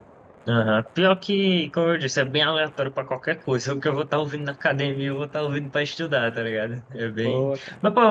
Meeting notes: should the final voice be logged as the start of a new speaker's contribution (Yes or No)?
No